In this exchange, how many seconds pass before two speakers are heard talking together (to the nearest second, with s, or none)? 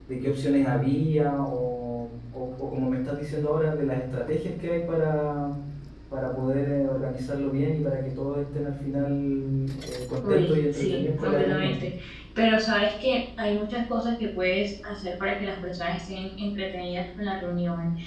10 s